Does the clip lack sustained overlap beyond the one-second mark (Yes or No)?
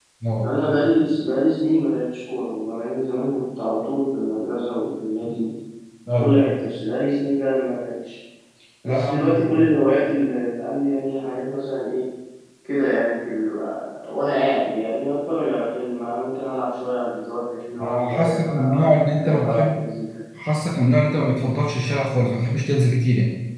No